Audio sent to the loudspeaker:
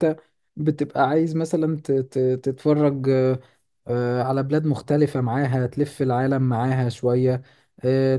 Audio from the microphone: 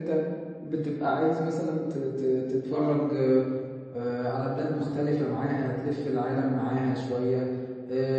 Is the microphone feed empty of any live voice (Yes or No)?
No